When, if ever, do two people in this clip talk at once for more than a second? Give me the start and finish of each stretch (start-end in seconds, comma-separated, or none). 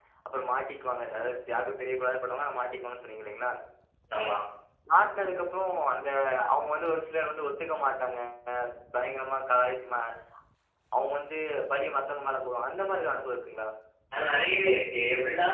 none